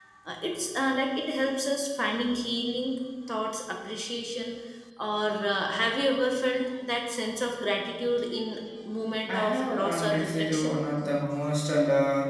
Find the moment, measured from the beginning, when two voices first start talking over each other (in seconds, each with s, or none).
9.3 s